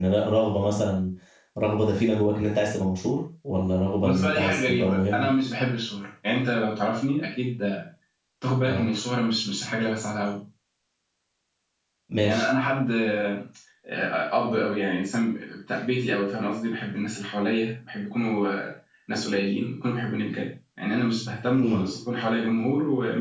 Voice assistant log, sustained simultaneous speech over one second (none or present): present